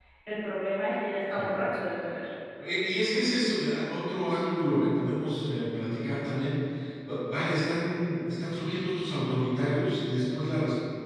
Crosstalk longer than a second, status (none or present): none